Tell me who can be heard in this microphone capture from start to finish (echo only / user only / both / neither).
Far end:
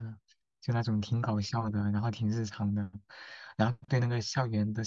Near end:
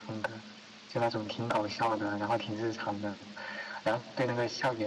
echo only